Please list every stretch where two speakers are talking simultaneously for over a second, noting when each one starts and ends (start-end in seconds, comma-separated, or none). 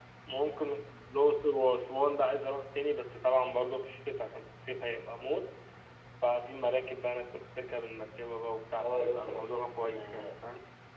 8.8-10.3